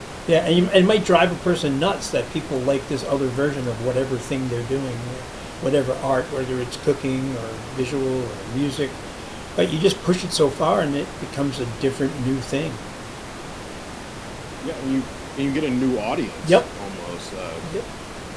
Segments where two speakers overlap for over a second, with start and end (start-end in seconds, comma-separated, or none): none